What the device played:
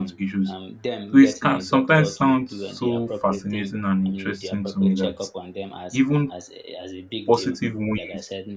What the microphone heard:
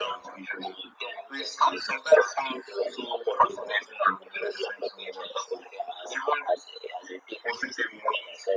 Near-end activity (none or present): none